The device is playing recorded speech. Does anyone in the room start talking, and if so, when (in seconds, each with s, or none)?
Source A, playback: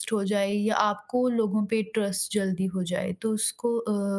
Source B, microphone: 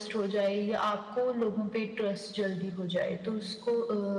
none